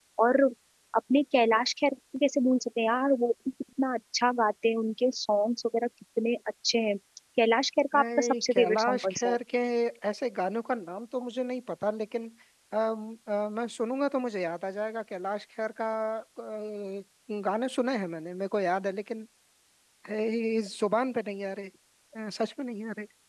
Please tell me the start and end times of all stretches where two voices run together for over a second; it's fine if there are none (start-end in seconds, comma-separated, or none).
7.9-9.4